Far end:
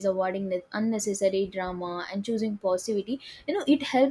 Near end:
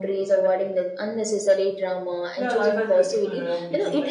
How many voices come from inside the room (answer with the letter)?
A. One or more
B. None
A